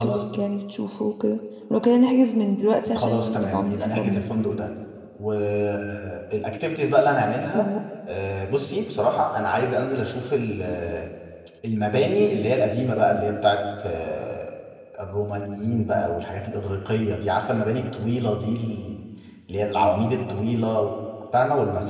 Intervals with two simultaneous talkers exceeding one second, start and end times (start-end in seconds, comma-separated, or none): 3.0-4.2